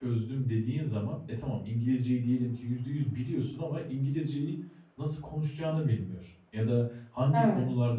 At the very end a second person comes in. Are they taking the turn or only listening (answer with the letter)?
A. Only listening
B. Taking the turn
A